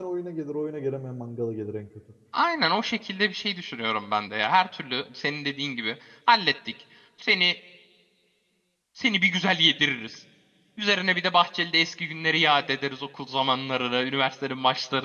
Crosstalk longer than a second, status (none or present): none